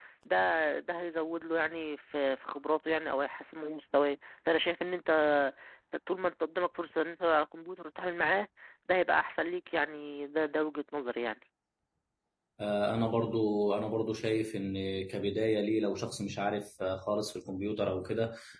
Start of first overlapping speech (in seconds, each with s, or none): none